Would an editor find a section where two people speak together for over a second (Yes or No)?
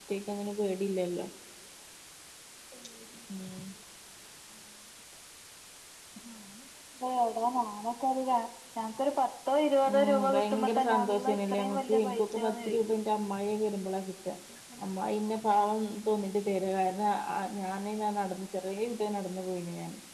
Yes